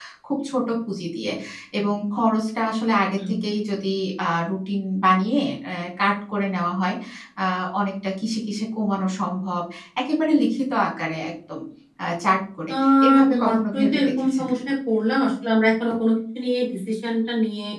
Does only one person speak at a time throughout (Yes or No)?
No